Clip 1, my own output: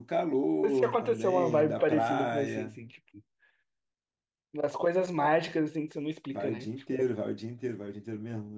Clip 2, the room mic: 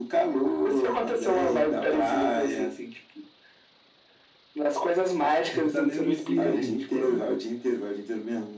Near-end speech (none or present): present